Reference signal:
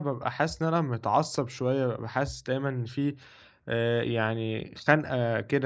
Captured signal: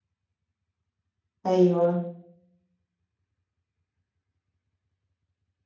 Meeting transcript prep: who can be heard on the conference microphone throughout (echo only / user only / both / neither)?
user only